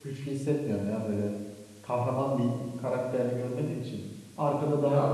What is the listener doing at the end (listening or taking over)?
taking over